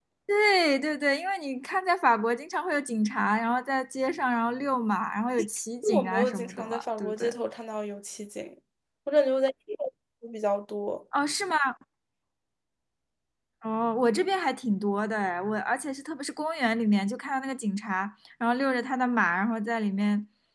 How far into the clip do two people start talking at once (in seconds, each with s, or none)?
5.8 s